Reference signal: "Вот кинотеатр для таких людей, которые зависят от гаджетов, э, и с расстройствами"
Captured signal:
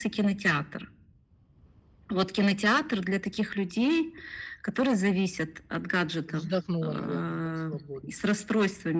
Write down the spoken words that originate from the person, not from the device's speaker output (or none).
Вздохнула, наверное, да, свободно?